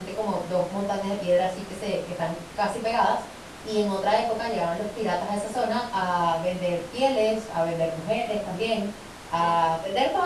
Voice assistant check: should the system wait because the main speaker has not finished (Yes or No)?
Yes